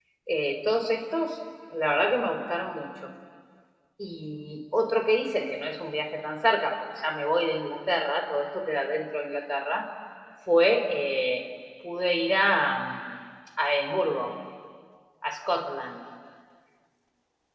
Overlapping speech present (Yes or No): No